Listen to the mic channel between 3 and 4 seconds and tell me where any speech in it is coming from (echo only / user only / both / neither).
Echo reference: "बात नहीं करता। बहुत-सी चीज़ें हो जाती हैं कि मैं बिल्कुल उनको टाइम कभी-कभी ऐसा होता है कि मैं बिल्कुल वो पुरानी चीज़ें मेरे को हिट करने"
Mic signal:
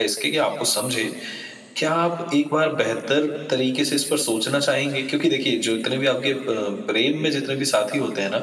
user only